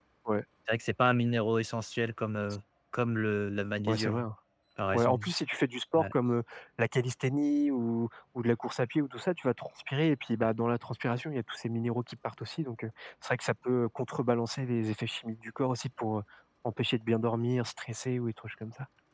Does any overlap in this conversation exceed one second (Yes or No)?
No